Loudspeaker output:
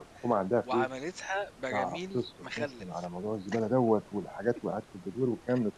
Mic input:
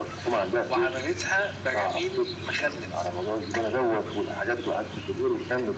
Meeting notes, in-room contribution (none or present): none